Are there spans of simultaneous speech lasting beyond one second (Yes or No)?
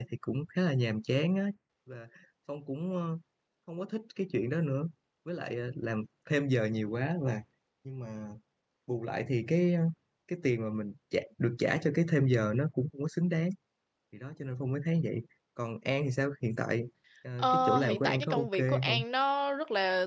Yes